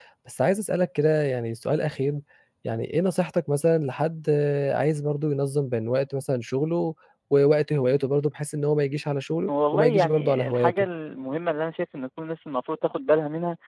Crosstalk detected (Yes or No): Yes